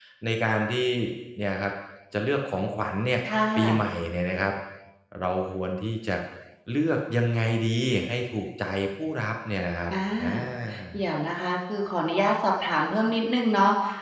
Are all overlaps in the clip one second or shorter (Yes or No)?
Yes